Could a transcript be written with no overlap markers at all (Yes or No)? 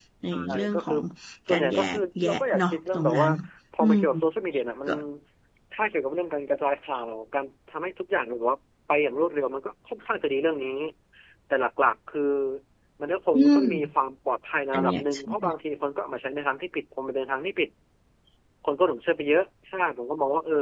No